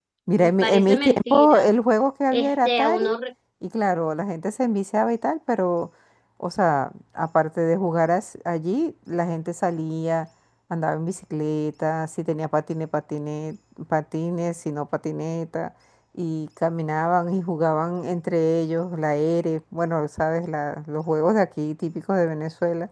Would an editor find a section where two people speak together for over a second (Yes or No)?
Yes